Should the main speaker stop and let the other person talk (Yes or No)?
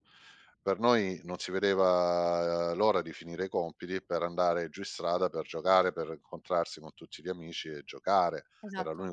No